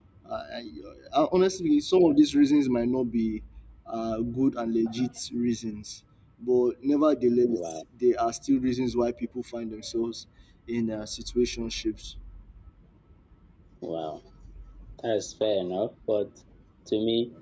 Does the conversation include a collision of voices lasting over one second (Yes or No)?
No